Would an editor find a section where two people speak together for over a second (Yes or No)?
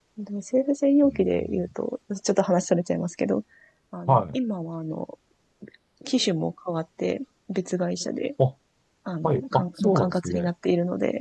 Yes